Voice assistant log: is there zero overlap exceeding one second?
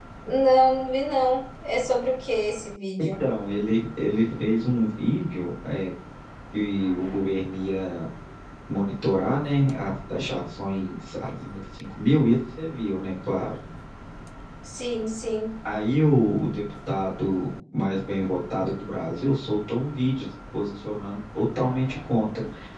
Yes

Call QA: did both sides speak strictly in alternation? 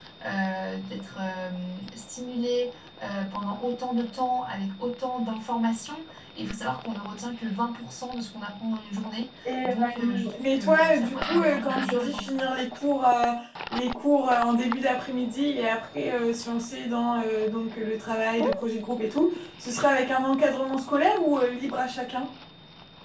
No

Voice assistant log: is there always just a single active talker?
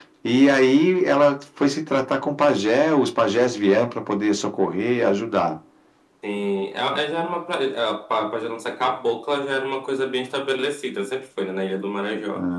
Yes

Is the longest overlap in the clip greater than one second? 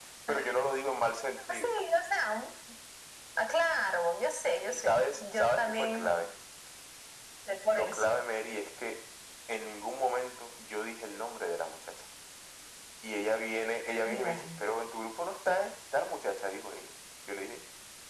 Yes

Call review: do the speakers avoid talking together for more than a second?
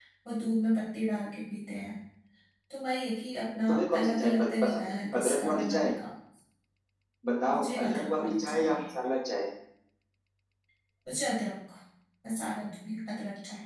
No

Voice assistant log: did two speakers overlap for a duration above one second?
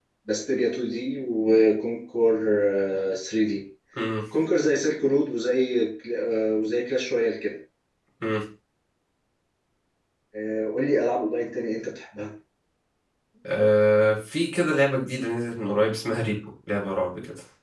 No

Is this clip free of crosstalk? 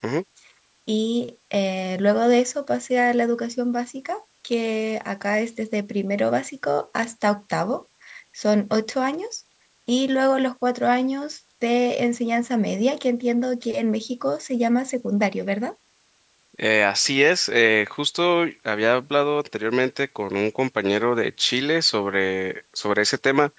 Yes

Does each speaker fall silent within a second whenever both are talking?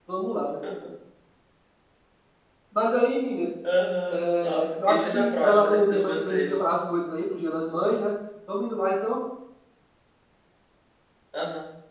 No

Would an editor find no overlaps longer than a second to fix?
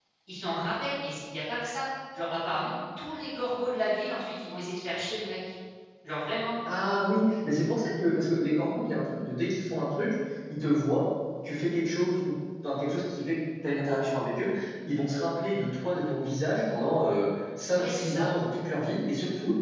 Yes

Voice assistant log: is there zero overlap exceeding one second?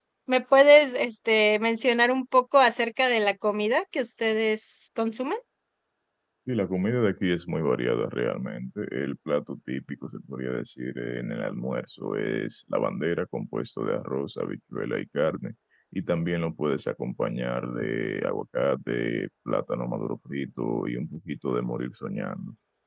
Yes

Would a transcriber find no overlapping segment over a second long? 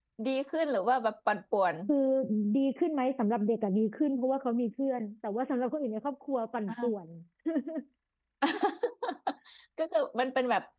Yes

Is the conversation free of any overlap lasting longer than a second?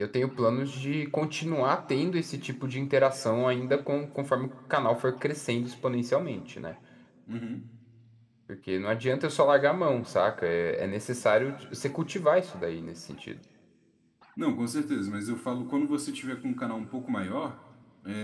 Yes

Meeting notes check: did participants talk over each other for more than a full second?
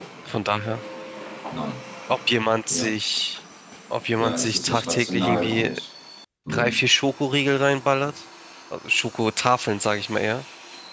Yes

